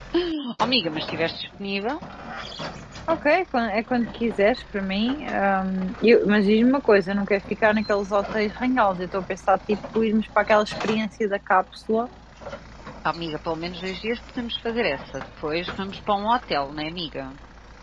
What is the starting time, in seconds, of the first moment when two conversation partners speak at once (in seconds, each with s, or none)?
none